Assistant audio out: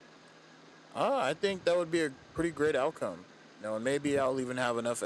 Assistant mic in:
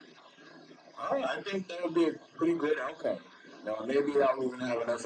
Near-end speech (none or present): none